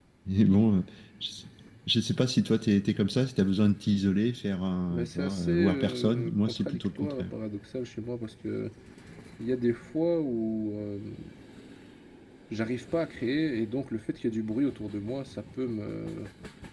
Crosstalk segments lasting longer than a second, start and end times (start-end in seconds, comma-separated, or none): 4.9-7.3